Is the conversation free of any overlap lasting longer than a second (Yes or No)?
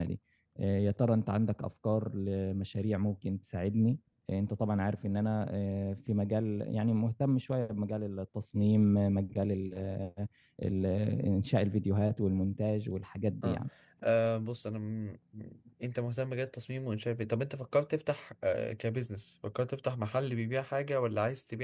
Yes